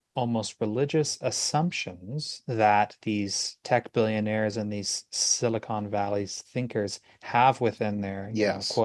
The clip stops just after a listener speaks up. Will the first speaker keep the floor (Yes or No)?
Yes